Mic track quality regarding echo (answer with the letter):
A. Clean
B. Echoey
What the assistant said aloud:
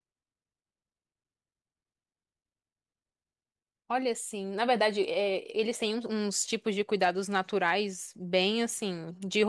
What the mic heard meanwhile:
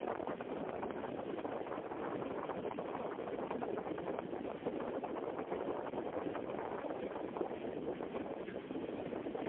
A